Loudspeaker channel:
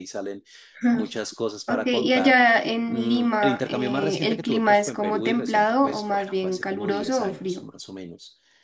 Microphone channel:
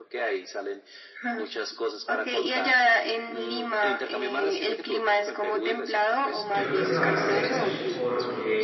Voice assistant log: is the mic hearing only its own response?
No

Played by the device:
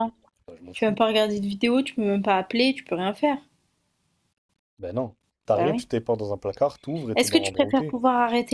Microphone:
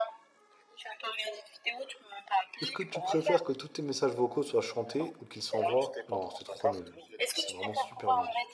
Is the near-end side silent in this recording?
No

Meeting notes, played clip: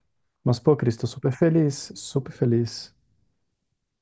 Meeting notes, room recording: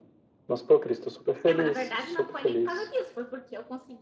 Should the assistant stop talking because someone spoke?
Yes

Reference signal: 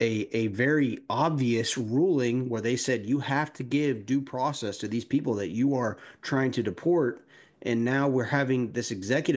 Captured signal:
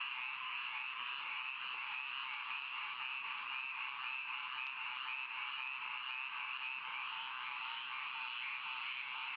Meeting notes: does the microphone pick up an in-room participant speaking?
No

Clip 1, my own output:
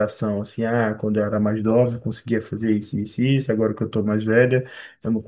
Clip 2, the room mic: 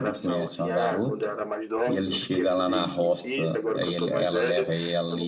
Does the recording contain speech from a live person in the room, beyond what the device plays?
Yes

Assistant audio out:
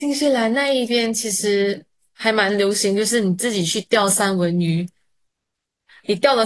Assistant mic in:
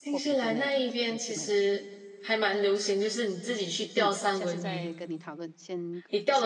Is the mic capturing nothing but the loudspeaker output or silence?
No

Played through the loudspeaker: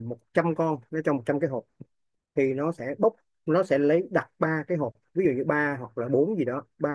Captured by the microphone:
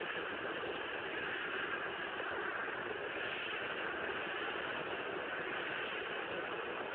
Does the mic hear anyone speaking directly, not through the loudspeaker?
No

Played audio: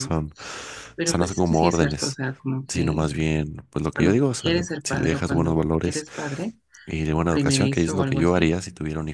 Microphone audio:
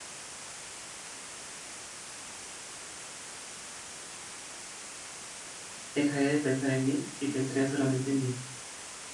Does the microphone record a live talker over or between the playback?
Yes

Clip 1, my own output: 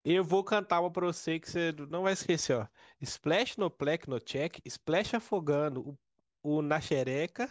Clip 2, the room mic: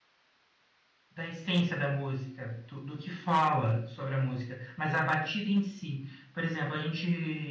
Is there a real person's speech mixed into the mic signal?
Yes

